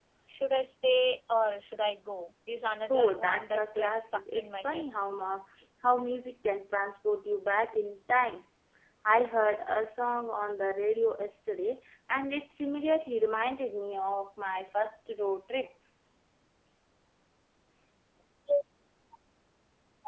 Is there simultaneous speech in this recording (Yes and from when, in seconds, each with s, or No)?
Yes, from 2.9 s